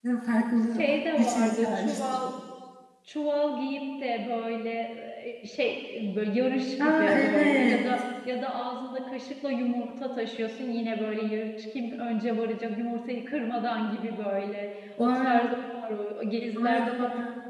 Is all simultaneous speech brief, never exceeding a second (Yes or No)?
No